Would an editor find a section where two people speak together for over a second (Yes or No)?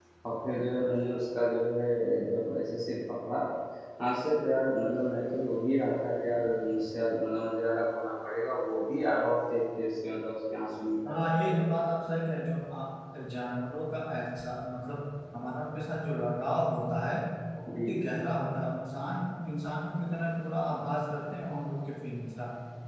No